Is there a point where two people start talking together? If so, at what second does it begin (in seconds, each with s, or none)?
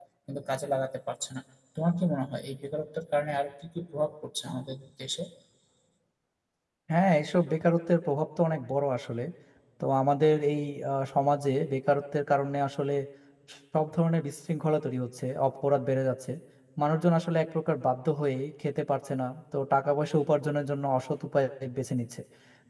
none